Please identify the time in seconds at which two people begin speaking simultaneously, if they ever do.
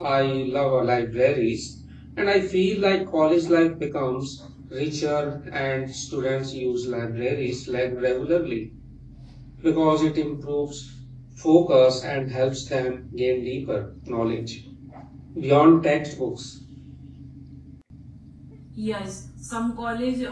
none

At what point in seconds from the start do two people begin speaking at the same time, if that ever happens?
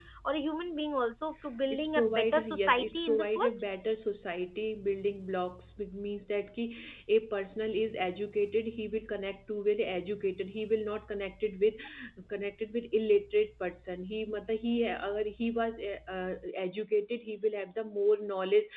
1.5 s

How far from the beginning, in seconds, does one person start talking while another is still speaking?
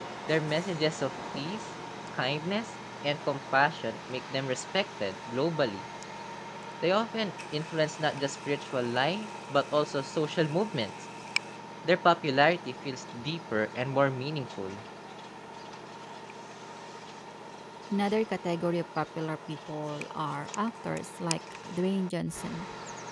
none

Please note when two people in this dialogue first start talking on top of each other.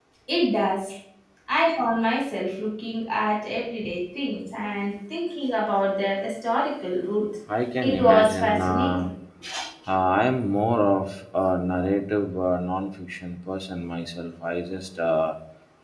7.8 s

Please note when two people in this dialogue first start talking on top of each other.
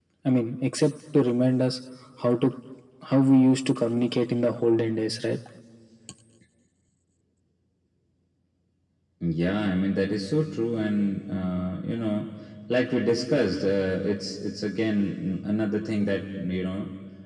none

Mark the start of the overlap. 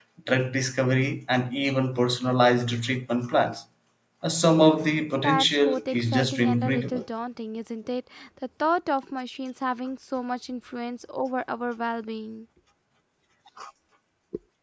5.2 s

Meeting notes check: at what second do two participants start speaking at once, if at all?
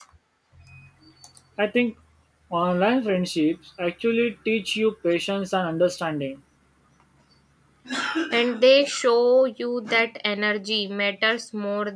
none

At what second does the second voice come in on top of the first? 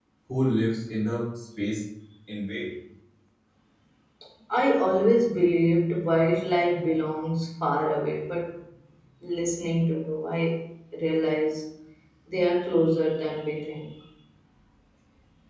none

